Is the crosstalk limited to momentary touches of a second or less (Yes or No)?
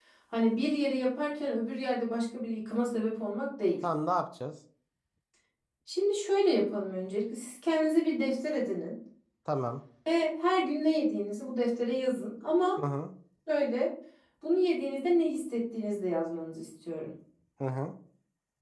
Yes